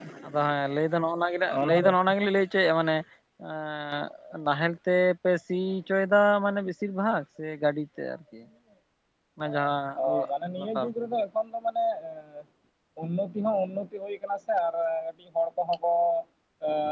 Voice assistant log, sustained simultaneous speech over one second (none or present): none